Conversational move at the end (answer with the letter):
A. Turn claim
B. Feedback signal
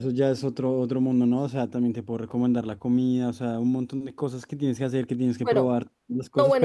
A